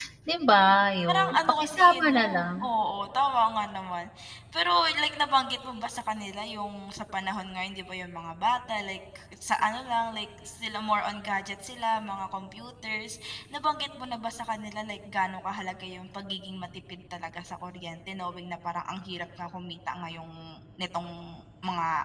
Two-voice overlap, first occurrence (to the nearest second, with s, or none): 1 s